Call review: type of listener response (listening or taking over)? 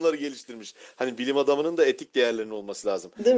listening